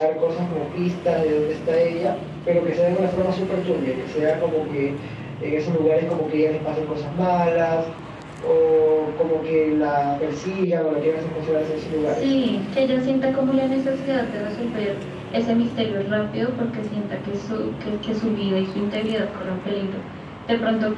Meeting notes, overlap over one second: none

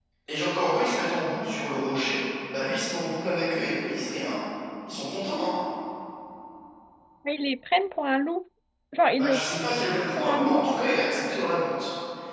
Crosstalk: present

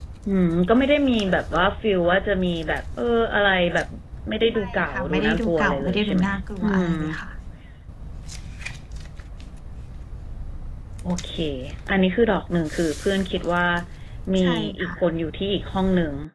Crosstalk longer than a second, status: present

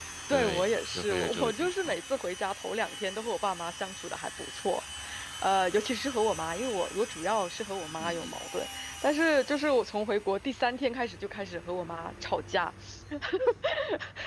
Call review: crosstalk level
present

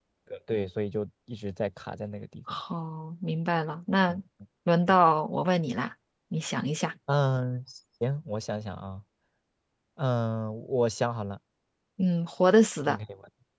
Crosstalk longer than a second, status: none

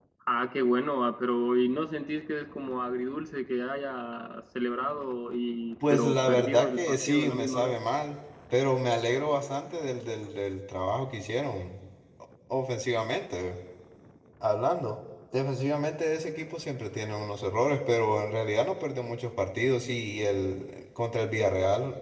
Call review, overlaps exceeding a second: present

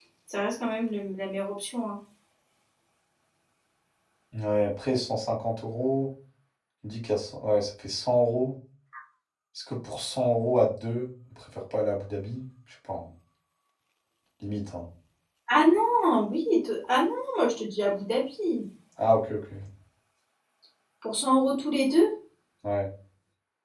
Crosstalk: none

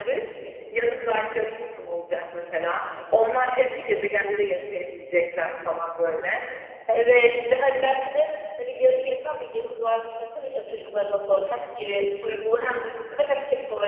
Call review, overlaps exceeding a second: none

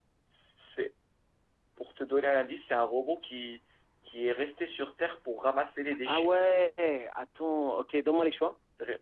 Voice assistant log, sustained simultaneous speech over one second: none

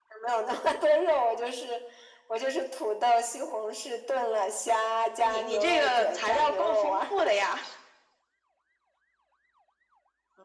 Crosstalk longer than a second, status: present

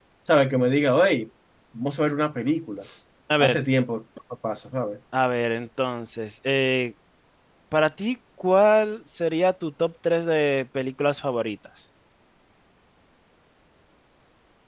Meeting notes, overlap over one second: none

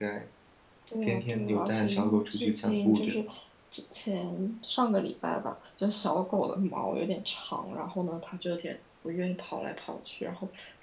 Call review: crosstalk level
present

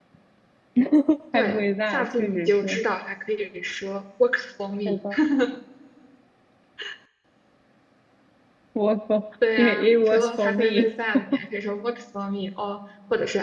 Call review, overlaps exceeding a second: present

